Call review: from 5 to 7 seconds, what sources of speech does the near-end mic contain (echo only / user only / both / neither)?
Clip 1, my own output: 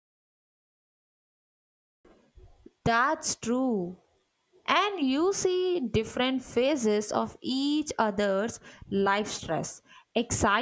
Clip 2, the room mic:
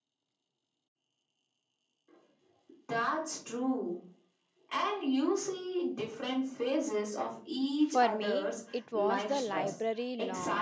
echo only